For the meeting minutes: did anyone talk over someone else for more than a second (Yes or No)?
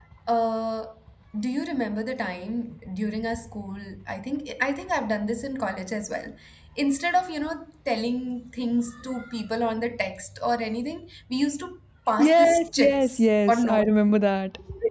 Yes